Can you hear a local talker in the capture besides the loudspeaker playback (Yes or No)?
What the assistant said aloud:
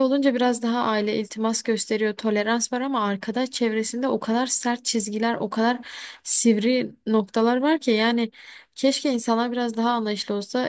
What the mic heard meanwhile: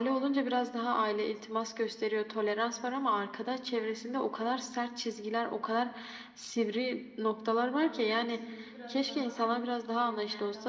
Yes